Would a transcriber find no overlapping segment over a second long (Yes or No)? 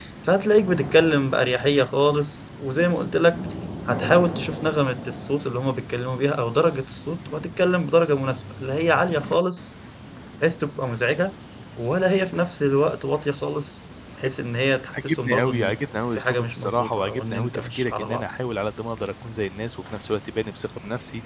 No